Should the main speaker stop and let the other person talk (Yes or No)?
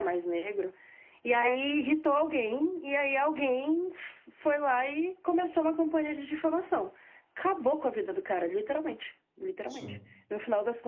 No